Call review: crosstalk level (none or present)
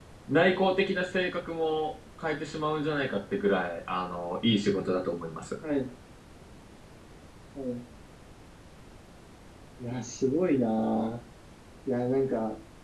none